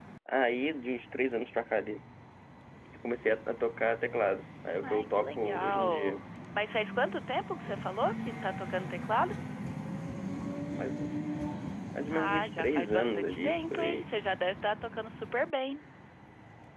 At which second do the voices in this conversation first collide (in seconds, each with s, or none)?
4.8 s